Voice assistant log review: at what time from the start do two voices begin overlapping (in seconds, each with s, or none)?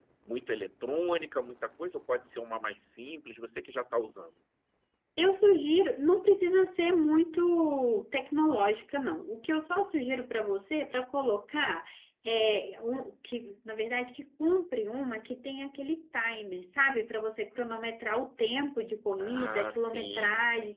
19.2 s